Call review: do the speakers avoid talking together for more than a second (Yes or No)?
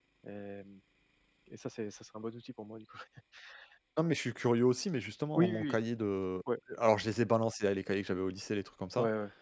Yes